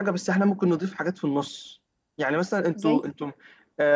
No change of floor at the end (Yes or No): Yes